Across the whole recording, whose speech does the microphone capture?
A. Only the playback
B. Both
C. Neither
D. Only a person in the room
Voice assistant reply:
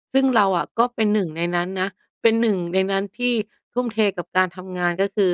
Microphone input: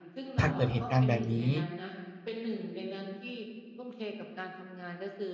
B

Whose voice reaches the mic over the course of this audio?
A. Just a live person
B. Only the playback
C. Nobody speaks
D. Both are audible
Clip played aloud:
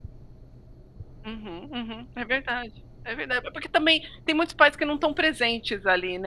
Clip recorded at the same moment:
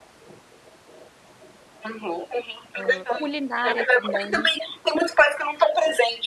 D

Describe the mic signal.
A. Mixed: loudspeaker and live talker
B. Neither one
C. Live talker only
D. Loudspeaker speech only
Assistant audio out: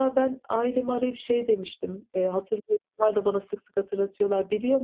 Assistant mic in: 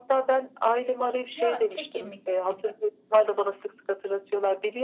A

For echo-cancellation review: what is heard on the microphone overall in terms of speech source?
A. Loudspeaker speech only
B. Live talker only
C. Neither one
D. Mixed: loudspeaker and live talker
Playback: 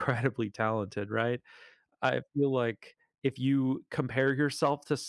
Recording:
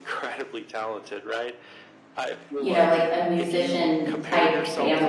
D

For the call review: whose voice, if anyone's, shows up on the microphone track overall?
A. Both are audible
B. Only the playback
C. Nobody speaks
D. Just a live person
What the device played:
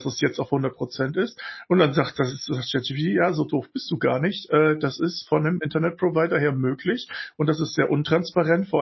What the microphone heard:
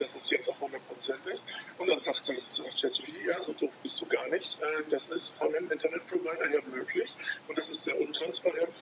B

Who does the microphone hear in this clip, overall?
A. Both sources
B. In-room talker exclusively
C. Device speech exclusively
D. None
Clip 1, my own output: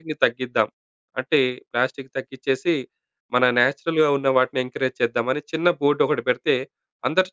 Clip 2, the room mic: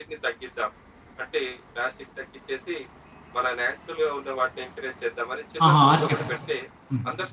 A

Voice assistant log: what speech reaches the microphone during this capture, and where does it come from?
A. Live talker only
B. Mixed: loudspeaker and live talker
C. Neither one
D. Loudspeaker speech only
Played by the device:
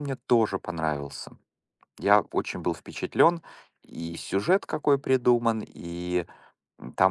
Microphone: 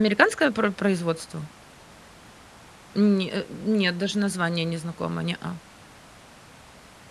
A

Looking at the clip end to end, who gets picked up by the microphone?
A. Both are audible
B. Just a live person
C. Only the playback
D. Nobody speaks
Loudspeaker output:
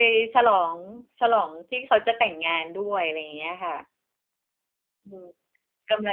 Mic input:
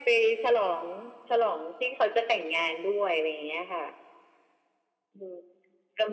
C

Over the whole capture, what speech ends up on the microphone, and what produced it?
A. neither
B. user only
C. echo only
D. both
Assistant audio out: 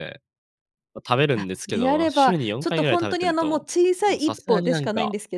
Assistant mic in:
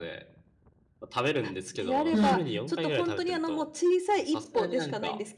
D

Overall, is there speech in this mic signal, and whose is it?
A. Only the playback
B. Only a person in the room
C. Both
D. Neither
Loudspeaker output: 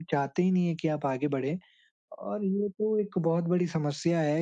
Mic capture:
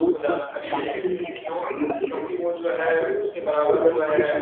C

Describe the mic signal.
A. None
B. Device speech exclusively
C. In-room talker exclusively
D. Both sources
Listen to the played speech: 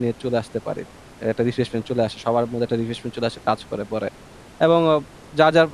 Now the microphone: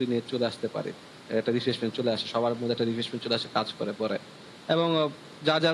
B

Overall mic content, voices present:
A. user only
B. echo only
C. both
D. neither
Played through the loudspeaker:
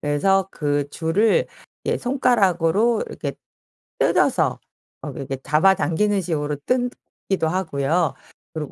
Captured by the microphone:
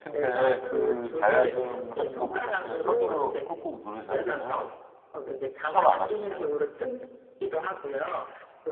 C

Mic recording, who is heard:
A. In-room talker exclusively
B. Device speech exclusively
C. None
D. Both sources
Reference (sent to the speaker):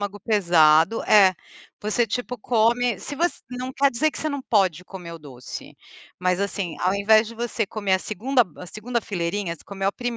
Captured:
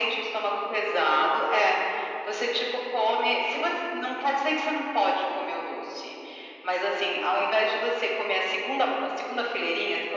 B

